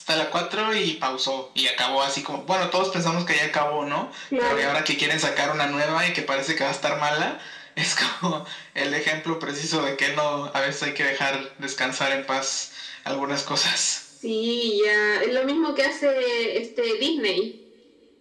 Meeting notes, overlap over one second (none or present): none